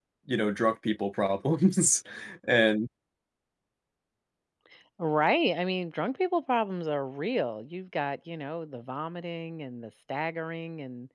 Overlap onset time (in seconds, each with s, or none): none